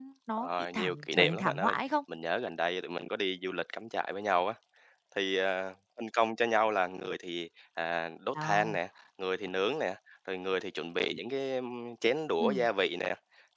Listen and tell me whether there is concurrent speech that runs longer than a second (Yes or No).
Yes